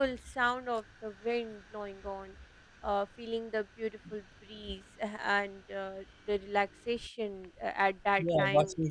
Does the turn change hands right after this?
Yes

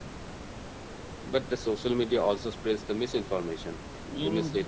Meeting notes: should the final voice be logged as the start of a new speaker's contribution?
Yes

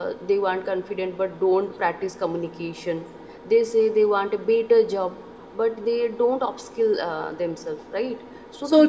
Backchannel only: Yes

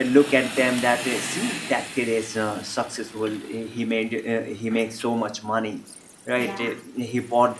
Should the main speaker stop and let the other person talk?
No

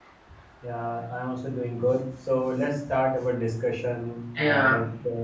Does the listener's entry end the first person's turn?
No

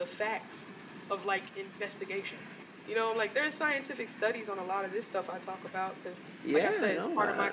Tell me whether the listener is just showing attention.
No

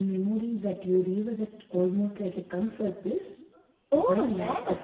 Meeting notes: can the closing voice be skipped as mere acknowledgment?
No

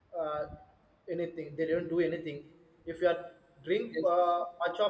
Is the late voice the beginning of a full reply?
No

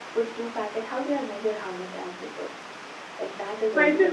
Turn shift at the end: Yes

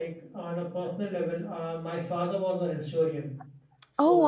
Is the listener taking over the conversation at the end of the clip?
No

